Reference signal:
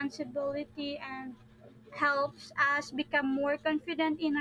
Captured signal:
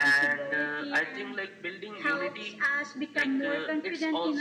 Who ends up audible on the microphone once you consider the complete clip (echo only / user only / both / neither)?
both